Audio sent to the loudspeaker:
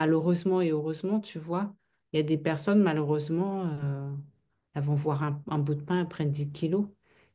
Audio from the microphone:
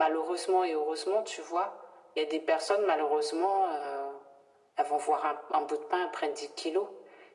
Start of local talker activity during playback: none

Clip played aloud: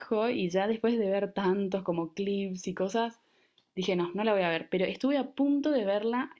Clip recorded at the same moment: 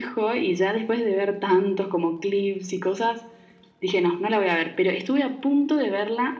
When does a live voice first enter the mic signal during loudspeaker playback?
none

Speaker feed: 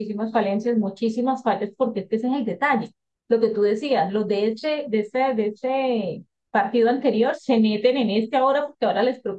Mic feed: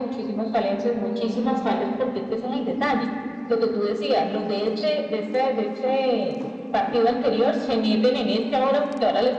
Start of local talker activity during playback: none

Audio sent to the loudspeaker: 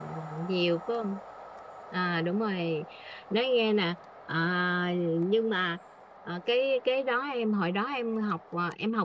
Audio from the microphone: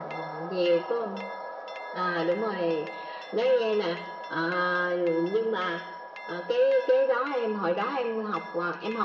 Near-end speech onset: none

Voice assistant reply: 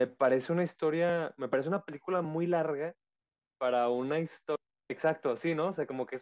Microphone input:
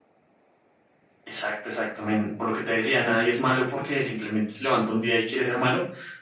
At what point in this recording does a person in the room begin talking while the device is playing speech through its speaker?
1.2 s

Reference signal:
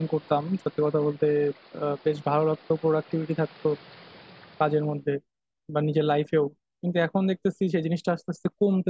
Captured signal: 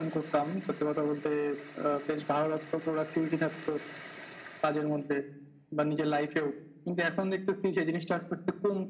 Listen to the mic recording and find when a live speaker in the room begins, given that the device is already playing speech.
none

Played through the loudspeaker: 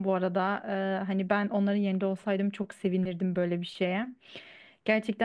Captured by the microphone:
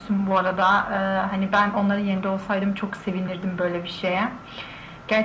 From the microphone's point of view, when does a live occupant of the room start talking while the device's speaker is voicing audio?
none

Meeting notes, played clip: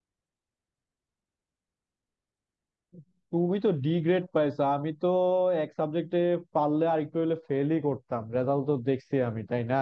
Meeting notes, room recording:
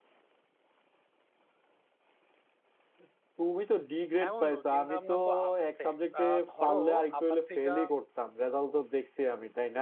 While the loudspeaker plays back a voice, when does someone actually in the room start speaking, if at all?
4.2 s

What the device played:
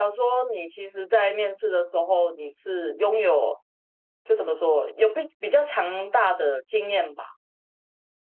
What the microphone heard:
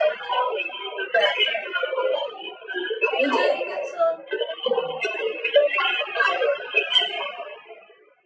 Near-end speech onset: 3.1 s

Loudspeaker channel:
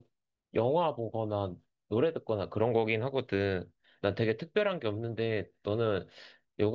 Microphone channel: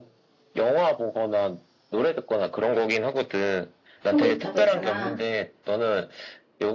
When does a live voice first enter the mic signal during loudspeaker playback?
4.1 s

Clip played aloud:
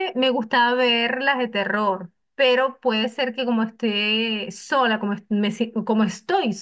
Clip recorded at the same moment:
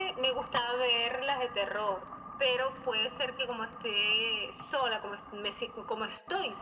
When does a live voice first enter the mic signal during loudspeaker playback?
none

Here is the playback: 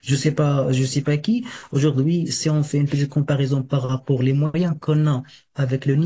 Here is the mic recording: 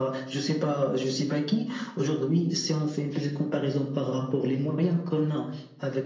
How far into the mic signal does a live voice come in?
none

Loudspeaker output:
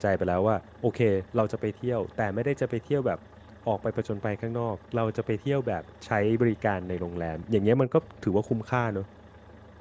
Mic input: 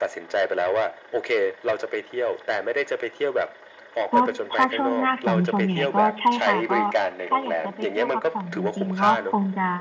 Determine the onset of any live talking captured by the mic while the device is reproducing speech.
4.1 s

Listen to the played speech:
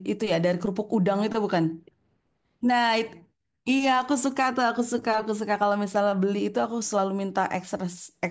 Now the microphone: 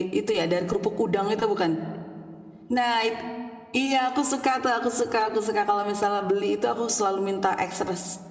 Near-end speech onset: none

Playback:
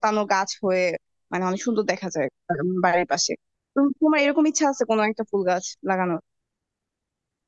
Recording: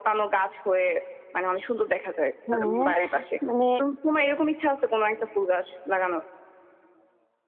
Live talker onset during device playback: 2.5 s

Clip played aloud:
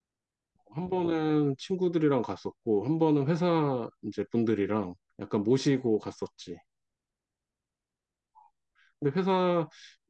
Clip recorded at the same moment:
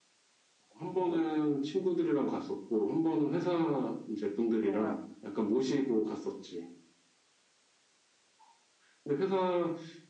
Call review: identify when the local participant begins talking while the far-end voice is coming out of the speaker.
4.6 s

